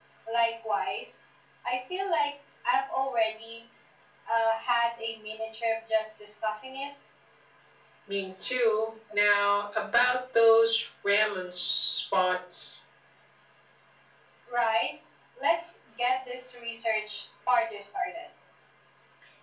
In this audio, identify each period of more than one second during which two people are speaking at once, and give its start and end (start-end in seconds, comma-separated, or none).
none